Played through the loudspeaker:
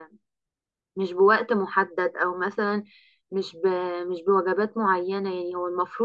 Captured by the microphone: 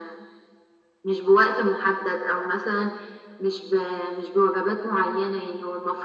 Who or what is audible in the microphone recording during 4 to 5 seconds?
echo only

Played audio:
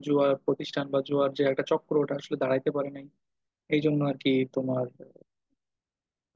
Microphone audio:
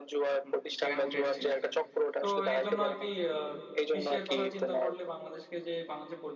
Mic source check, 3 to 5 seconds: both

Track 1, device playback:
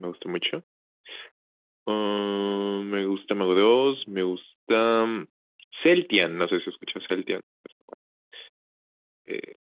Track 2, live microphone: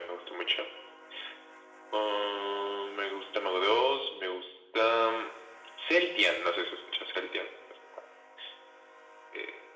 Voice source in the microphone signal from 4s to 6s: echo only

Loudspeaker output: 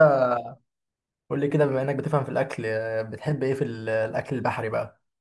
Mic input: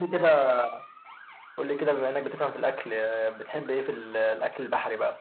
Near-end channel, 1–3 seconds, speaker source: echo only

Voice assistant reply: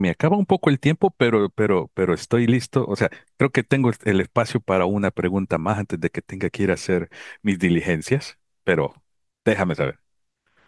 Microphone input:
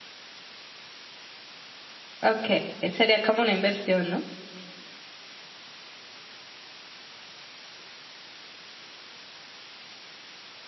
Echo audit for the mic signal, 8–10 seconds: neither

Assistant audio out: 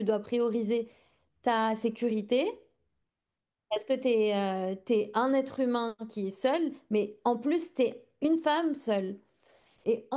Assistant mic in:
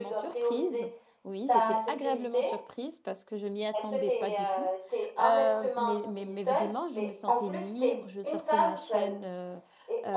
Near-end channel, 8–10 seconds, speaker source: both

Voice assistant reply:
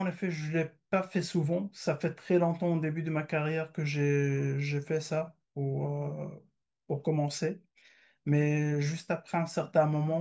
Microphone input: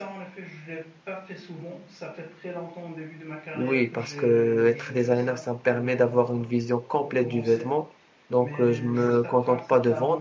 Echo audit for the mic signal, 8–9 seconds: both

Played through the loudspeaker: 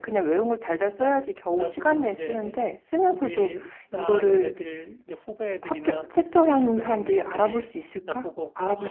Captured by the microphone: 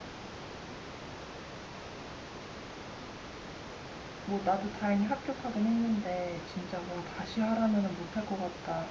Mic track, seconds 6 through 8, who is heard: user only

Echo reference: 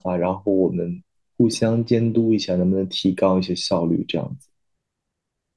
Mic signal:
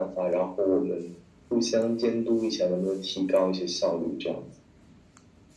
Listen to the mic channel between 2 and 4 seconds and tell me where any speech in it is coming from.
echo only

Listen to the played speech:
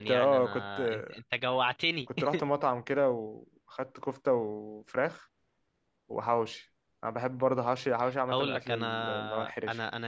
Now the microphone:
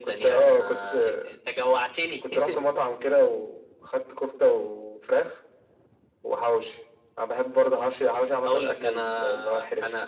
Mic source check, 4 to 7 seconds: echo only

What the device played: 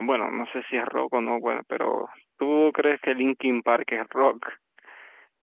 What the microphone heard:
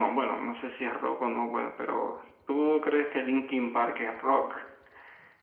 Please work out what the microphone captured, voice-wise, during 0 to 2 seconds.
echo only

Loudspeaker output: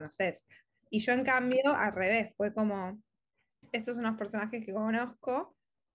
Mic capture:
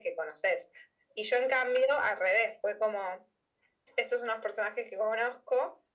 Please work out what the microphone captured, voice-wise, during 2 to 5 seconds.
echo only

